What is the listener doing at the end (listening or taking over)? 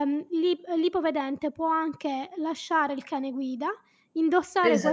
listening